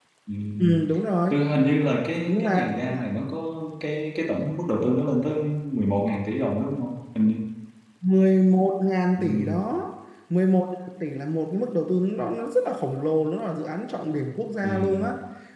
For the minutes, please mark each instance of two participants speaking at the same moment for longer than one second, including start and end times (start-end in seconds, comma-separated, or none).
none